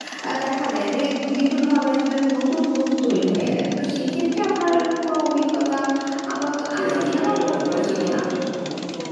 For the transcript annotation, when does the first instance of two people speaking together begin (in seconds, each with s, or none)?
6.7 s